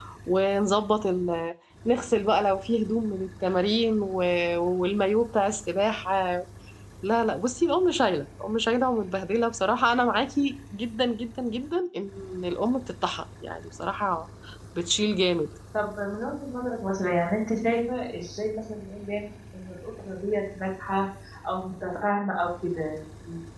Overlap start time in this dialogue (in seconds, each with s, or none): none